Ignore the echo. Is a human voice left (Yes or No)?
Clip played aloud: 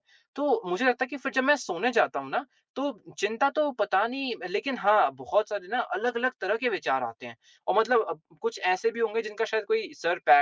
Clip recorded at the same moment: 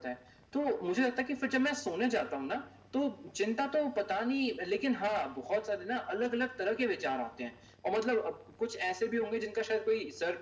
No